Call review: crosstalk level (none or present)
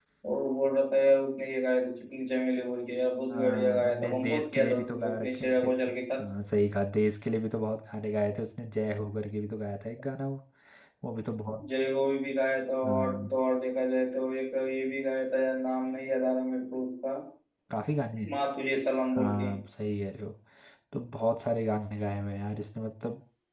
present